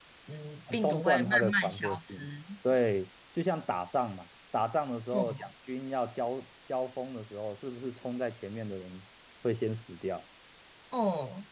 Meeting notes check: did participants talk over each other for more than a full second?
Yes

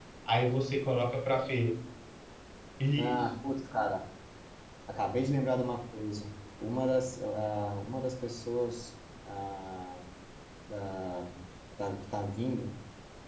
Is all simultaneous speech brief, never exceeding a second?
Yes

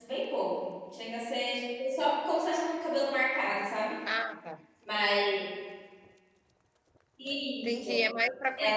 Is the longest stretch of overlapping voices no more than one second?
Yes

